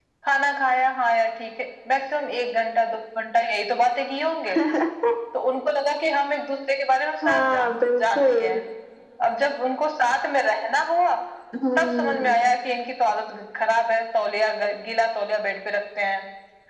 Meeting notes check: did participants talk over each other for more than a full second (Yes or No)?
Yes